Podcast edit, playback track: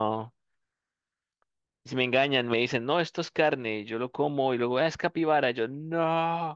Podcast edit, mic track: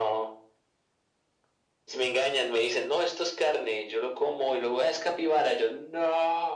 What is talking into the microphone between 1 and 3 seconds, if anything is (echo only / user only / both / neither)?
echo only